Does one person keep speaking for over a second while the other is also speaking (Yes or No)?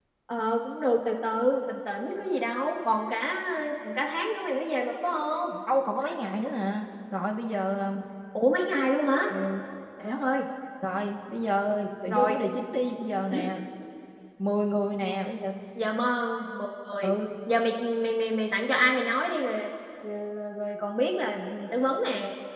No